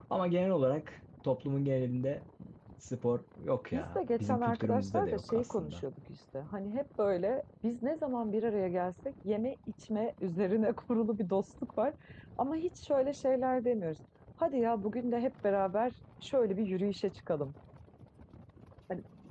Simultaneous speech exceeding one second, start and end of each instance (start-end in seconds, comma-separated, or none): 3.7-5.8